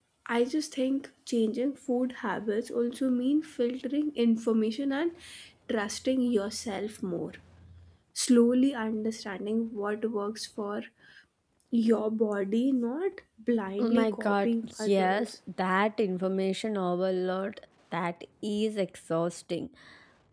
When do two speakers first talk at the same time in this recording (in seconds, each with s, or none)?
13.8 s